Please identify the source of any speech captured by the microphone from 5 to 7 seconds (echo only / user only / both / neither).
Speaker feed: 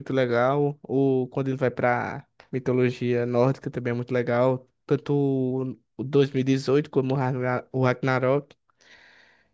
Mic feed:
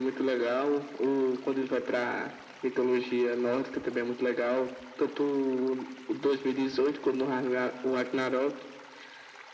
echo only